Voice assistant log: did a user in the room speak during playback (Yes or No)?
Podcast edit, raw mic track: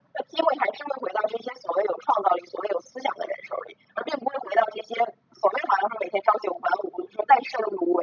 No